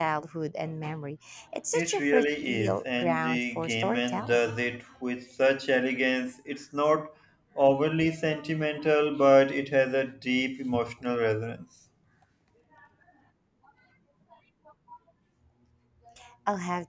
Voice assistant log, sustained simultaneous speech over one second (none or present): present